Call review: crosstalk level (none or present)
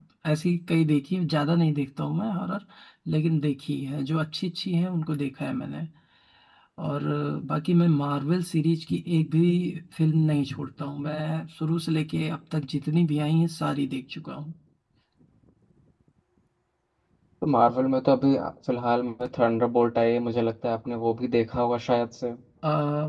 none